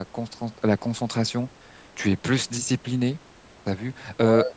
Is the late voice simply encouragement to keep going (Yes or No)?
Yes